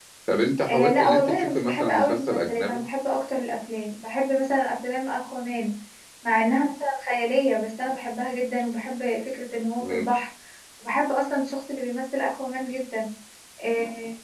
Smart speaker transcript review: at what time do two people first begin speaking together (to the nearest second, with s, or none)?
1 s